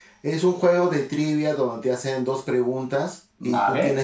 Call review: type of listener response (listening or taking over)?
listening